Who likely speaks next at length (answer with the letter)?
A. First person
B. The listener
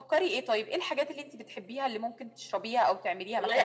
B